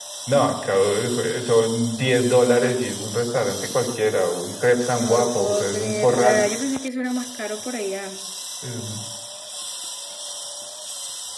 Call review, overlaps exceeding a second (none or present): present